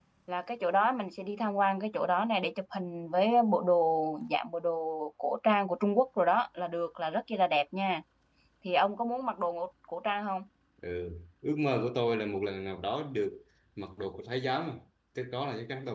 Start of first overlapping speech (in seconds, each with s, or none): none